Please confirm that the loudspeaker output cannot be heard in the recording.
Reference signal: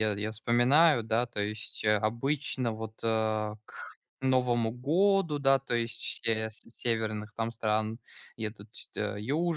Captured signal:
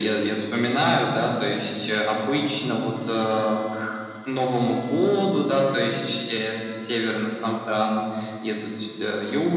No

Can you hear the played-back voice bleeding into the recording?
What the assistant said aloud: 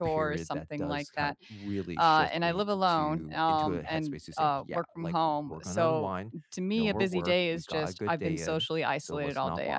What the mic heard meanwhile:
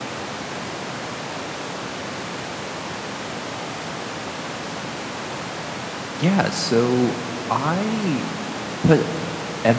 No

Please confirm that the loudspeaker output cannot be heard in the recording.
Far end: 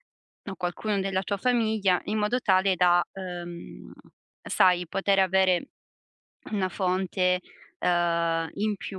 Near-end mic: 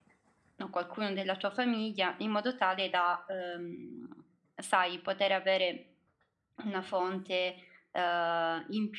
No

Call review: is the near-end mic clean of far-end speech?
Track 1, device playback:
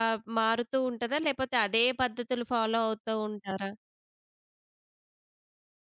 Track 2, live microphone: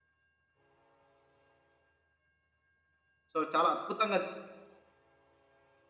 Yes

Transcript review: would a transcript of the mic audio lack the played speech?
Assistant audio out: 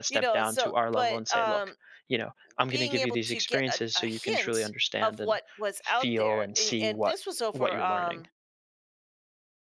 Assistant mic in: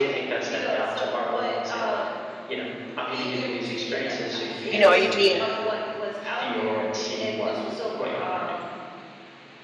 No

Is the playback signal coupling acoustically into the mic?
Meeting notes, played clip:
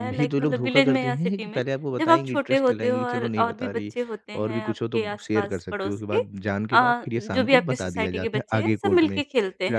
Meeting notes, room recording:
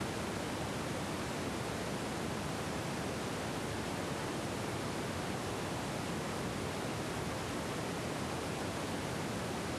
No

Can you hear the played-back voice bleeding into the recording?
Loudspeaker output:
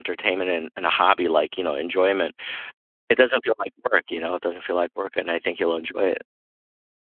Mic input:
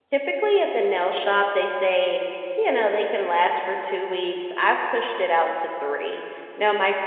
No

